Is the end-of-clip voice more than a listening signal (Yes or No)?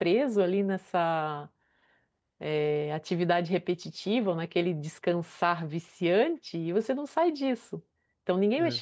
No